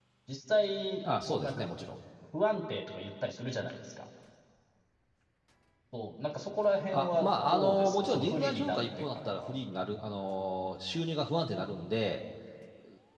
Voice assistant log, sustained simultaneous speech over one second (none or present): present